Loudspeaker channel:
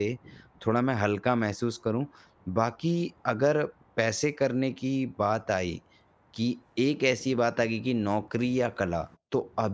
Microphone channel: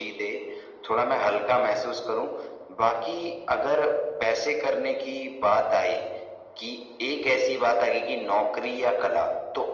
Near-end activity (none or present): none